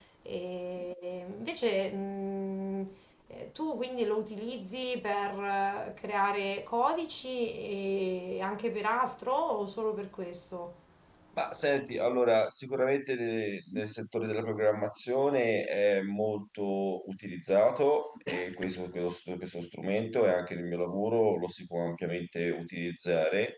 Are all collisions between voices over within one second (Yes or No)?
Yes